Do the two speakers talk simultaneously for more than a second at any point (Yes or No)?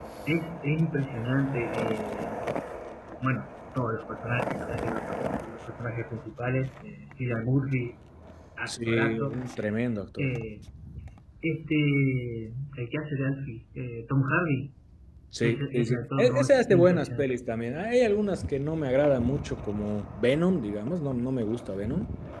Yes